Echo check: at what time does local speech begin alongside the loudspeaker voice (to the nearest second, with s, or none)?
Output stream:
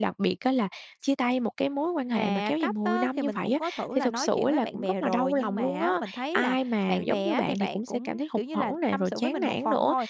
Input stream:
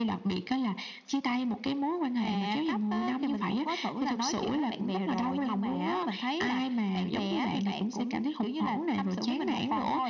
none